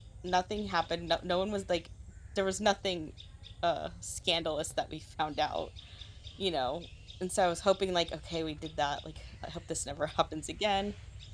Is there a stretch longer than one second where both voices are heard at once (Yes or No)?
No